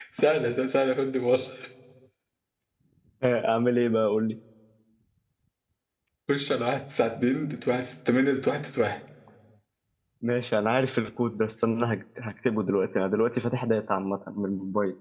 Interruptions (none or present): none